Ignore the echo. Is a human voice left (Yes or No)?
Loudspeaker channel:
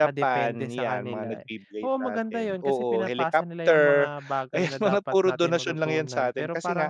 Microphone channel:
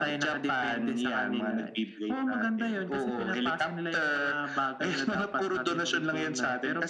No